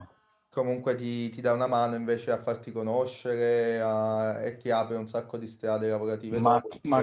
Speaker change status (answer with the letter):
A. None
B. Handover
B